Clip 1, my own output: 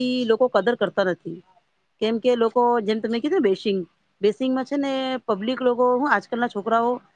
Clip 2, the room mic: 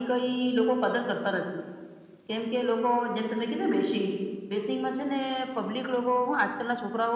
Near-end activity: none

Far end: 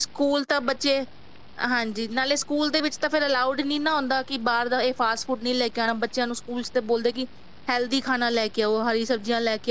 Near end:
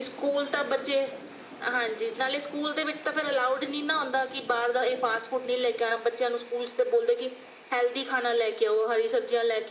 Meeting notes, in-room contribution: none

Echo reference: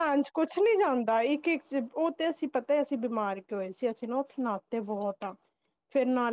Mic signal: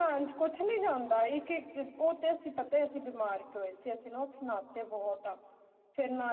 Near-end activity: none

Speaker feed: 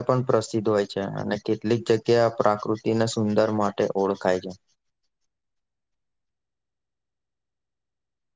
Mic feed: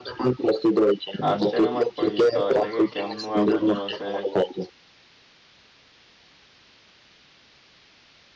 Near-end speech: present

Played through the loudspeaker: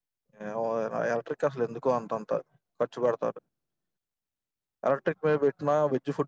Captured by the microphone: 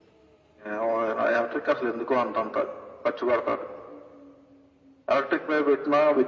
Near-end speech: none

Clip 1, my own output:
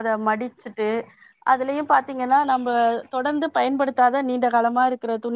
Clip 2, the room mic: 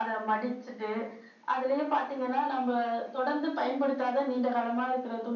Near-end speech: none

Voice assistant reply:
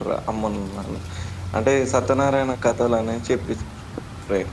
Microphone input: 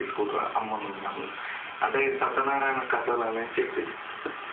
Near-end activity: none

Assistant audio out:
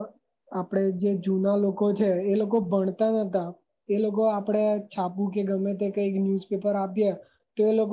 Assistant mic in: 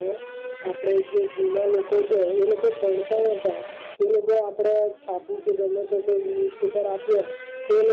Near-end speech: none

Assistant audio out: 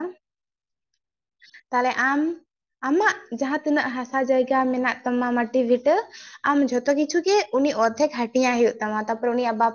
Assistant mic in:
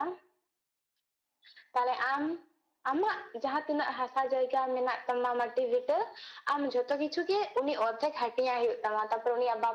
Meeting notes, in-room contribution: none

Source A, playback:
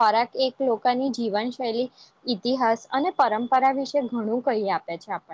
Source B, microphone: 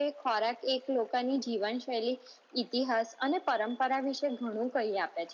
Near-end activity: none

